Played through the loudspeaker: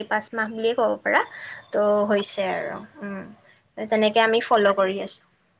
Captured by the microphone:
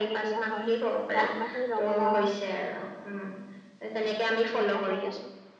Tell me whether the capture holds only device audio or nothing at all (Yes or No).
No